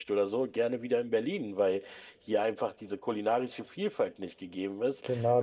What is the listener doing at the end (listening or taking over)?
taking over